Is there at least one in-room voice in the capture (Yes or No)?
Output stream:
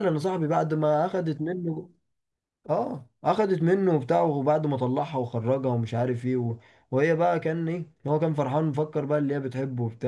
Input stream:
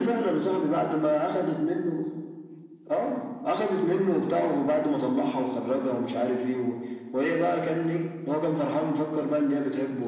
No